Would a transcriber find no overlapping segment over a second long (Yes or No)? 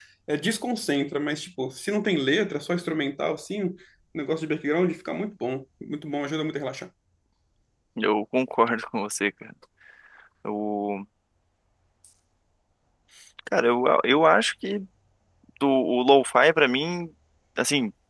Yes